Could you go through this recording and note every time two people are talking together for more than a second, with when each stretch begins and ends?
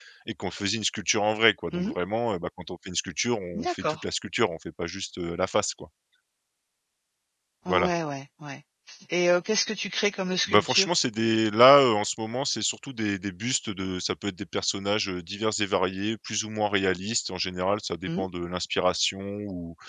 none

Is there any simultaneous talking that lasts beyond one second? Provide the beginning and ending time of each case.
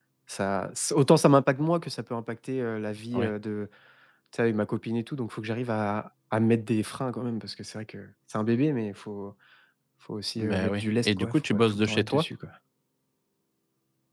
10.4-12.2

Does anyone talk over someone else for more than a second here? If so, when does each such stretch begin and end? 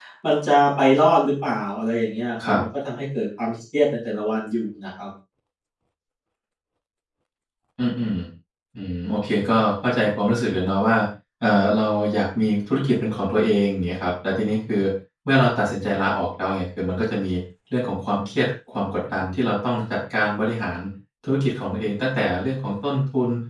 none

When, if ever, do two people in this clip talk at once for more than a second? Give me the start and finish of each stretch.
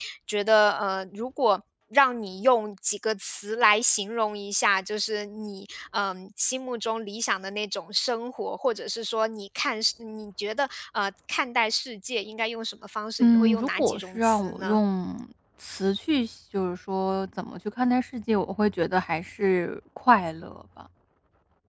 13.2-14.8

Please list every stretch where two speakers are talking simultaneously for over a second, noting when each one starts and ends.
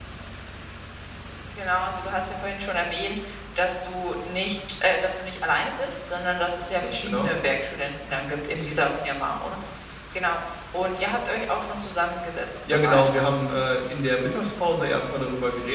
none

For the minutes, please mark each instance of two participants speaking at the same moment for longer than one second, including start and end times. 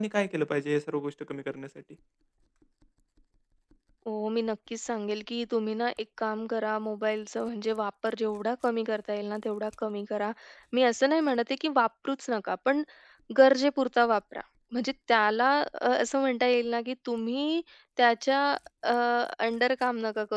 none

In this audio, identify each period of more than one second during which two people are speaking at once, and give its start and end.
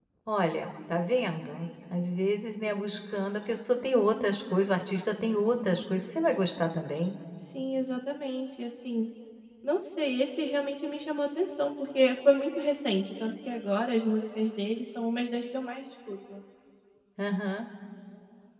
none

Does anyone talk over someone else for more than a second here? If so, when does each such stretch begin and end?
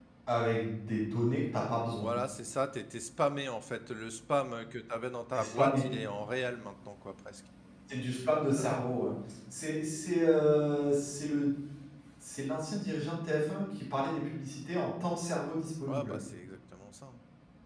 none

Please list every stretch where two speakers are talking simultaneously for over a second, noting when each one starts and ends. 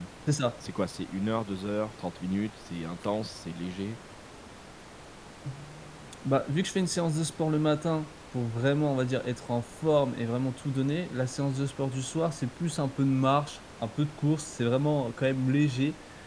none

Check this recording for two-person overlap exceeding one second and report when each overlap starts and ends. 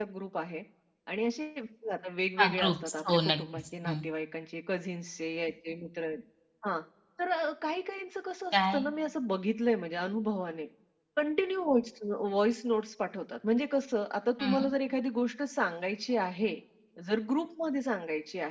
2.6-4.0

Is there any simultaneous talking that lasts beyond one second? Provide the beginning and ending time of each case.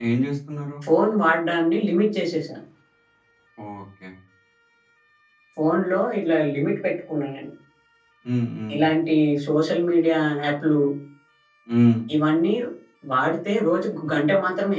none

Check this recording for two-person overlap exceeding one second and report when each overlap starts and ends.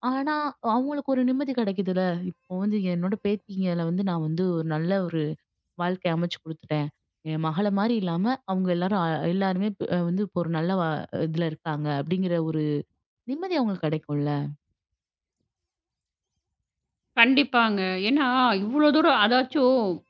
none

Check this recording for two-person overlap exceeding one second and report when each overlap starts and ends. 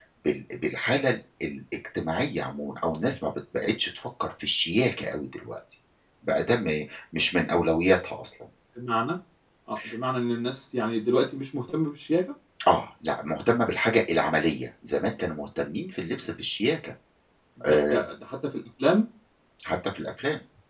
none

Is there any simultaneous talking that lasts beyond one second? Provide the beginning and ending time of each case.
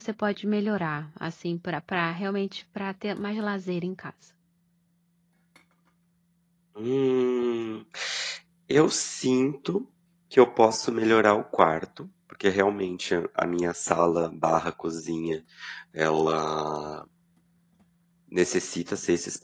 none

